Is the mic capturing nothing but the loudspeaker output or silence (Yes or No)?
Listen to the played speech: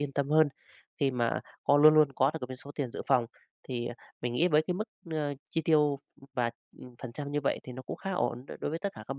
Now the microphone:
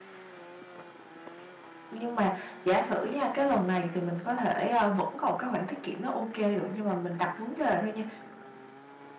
No